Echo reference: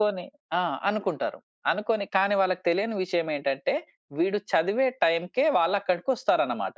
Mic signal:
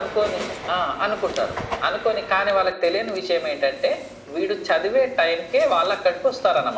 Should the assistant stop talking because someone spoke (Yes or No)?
No